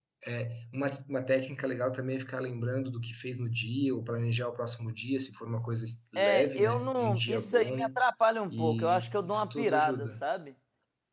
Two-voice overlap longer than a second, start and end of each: 6.2-7.9, 8.5-10.2

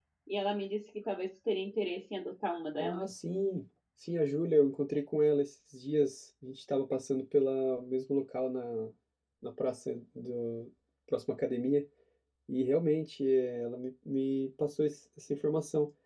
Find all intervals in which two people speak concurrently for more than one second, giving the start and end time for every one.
none

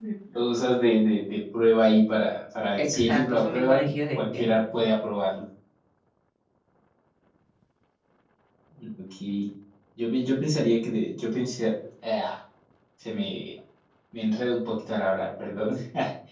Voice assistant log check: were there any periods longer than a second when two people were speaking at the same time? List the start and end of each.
2.8-4.5

